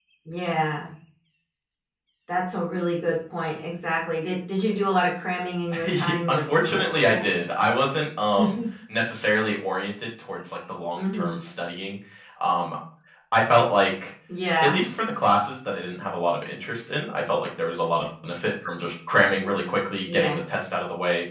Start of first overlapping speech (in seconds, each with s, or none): 5.8 s